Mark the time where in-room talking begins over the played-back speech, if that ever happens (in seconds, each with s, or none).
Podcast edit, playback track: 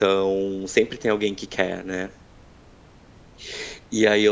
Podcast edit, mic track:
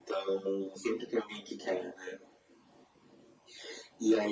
none